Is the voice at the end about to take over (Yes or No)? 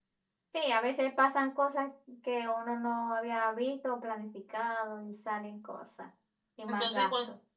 Yes